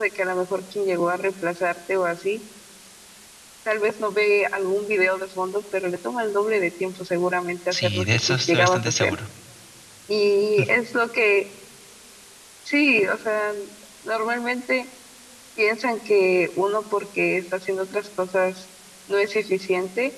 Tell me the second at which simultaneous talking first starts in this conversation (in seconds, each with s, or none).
7.7 s